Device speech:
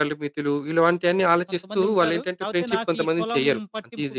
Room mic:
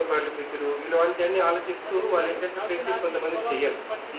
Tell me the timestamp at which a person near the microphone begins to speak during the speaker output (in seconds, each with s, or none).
none